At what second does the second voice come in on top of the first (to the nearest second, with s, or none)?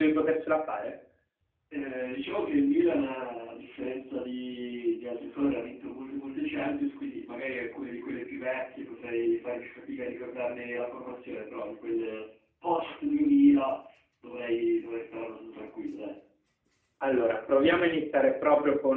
none